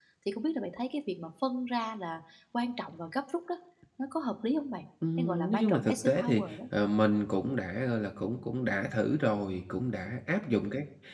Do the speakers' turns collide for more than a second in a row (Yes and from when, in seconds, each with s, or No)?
Yes, from 5.0 s